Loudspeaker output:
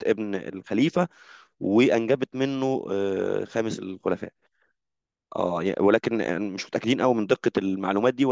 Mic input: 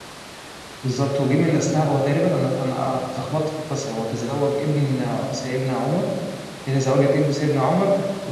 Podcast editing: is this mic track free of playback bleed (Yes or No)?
Yes